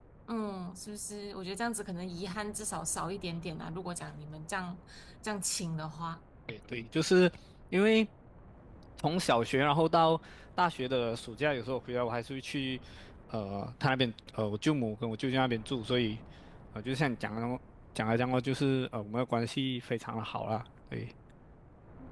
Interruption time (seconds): none

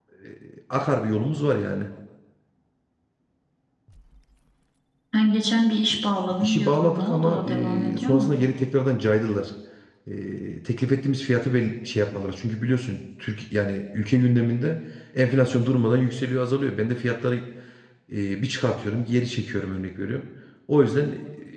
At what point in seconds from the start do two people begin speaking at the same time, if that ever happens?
6 s

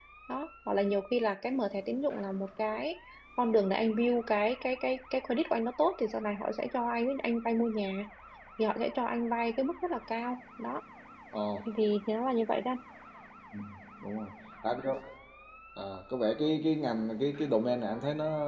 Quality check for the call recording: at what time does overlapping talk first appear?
none

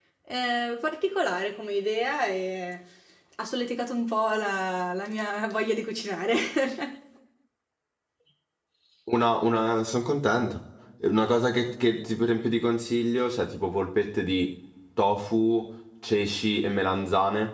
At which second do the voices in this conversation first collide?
none

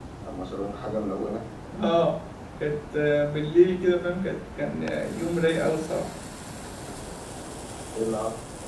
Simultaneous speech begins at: none

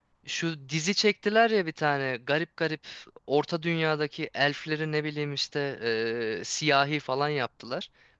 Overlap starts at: none

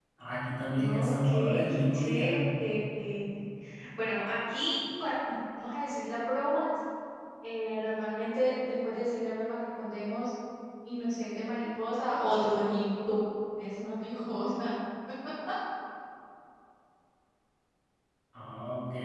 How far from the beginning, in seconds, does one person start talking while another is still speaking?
1 s

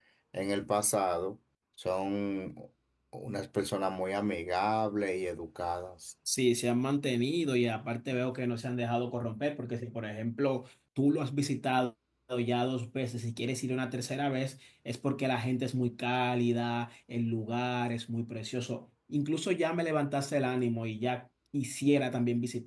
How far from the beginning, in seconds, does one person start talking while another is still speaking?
none

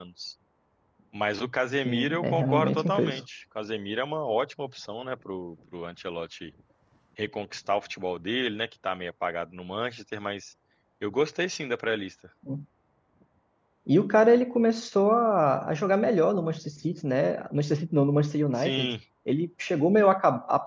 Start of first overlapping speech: 2 s

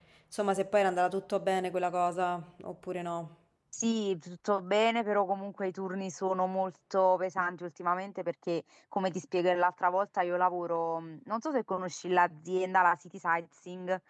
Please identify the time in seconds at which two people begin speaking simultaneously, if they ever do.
none

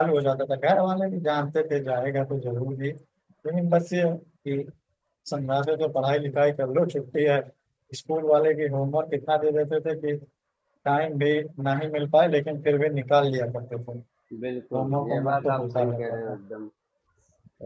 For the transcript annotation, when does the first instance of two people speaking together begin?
15 s

